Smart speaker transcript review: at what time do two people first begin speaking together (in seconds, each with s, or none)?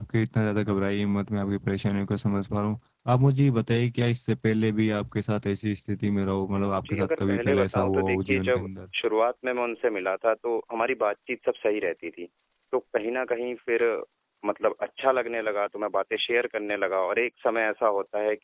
6.8 s